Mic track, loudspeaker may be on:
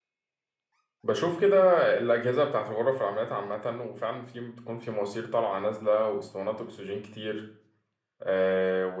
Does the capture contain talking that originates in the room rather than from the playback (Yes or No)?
Yes